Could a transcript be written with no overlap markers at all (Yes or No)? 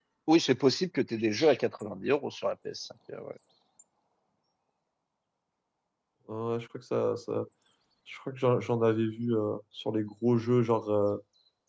Yes